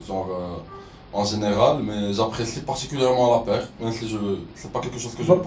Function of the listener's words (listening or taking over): taking over